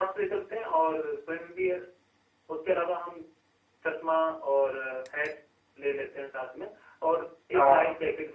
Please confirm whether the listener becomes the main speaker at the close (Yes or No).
No